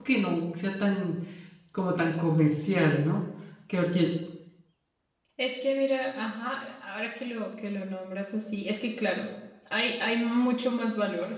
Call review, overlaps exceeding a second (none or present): none